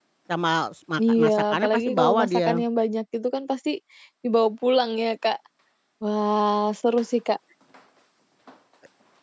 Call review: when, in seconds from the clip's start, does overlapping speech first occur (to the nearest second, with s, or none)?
1 s